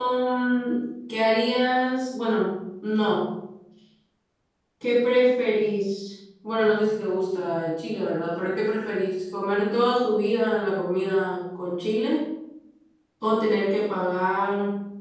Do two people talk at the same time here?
No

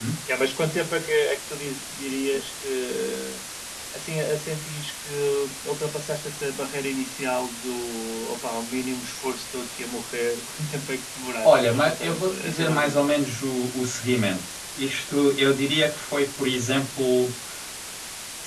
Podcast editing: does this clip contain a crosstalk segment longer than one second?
Yes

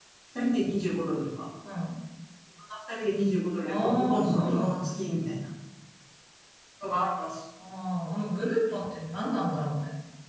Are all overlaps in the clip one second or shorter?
No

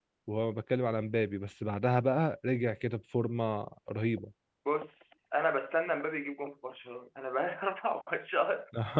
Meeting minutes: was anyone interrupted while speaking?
No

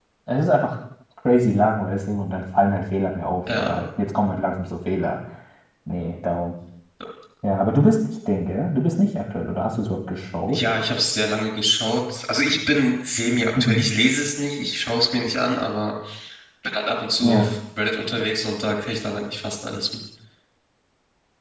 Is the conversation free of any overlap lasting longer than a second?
Yes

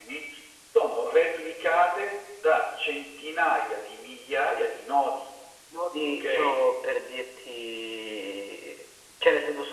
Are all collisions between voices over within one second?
Yes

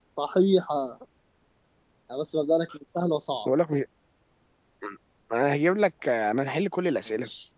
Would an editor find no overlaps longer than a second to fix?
Yes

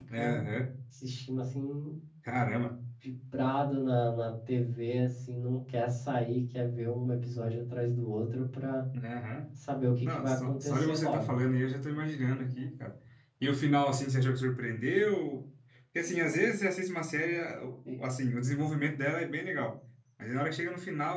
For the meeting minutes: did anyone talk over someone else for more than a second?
Yes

